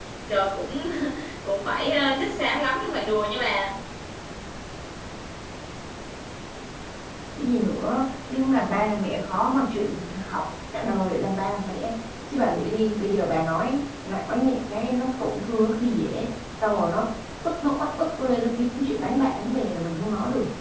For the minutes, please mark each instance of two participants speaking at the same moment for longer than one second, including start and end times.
none

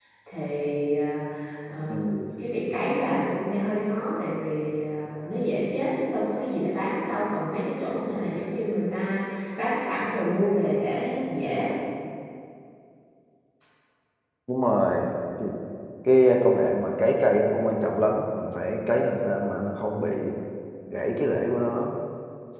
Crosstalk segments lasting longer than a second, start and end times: none

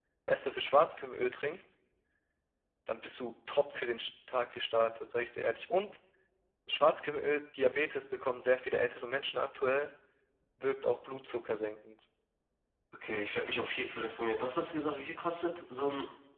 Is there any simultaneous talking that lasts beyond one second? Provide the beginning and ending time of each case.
none

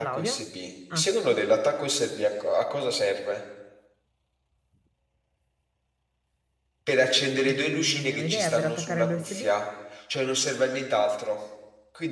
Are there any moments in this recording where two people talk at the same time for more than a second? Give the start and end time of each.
7.5-9.5

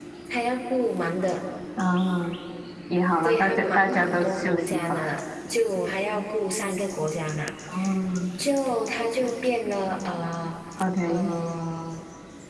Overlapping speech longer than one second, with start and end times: 3.2-5.0

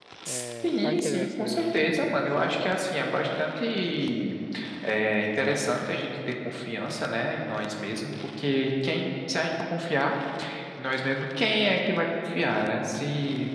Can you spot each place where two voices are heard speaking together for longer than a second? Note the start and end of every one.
0.6-2.7

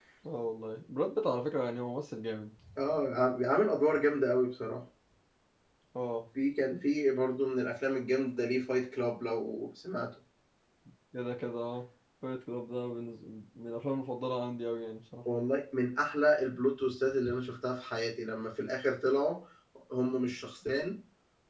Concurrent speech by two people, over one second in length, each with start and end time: none

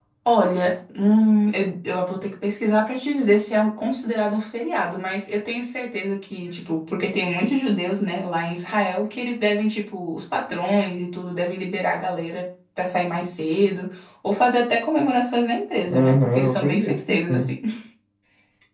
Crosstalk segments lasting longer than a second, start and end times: 15.9-17.4

